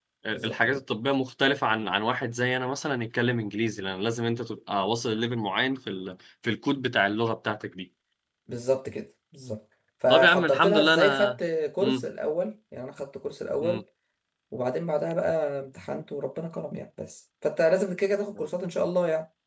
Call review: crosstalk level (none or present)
present